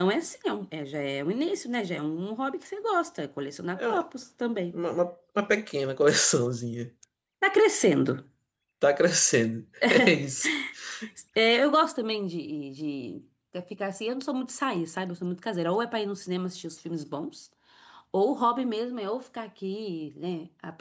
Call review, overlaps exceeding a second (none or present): none